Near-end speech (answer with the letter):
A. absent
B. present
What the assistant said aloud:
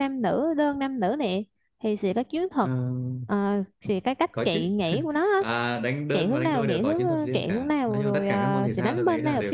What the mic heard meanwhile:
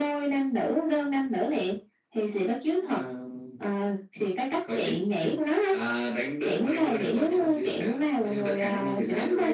A